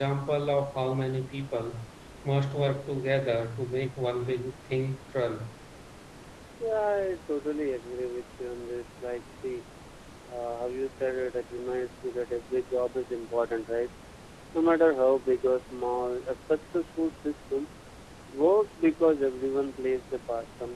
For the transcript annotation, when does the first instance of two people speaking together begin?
none

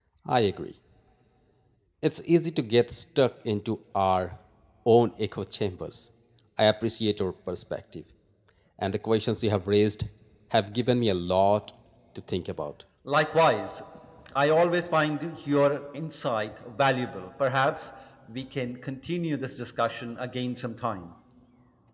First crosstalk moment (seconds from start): none

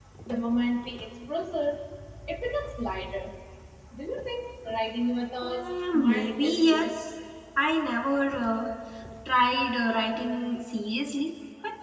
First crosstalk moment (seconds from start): 5.4 s

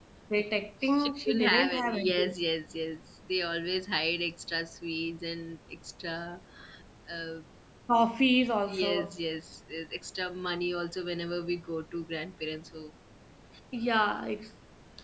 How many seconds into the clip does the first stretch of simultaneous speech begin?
0.8 s

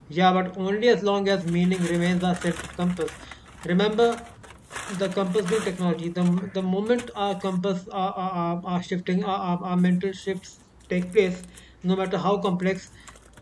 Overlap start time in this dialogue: none

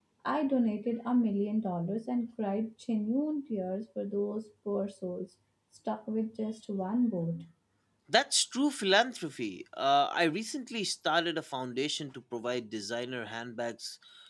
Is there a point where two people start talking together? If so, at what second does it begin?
none

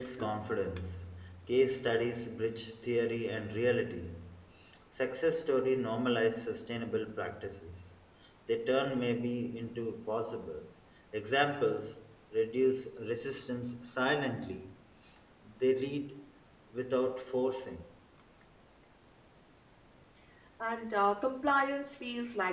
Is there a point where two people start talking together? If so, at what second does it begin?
none

